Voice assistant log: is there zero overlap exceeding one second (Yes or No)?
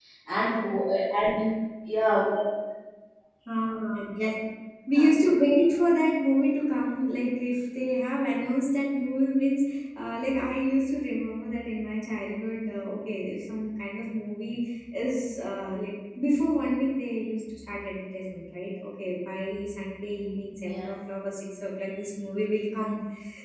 Yes